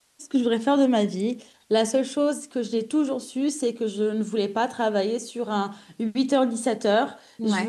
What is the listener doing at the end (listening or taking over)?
listening